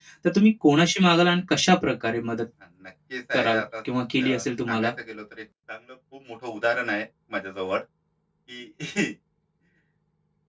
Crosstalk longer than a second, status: none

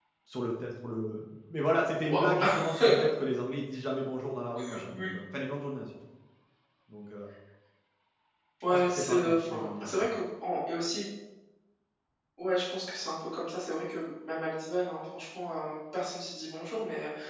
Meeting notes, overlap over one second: present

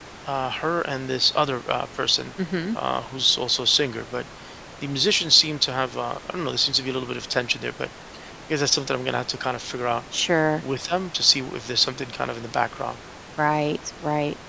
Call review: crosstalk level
none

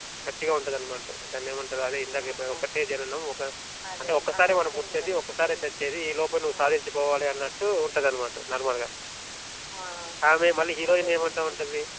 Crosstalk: present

